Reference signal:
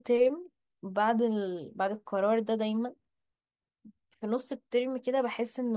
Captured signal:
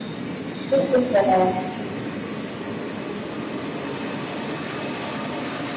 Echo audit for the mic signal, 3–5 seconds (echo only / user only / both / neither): neither